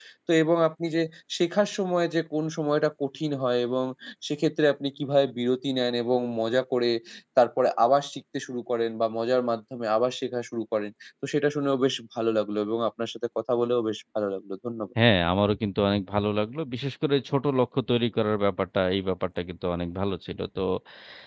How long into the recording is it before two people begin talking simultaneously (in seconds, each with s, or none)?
none